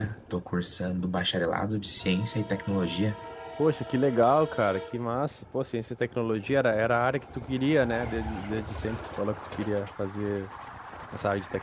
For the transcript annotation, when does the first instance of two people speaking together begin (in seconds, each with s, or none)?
none